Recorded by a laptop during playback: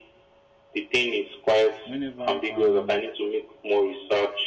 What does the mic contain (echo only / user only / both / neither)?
both